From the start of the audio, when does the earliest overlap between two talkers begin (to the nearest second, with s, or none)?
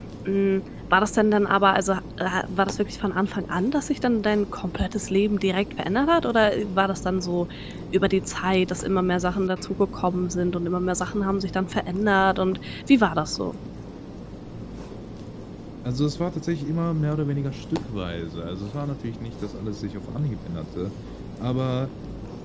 none